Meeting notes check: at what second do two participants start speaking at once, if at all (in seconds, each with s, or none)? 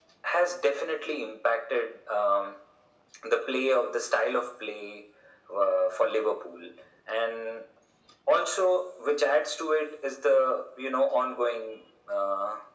none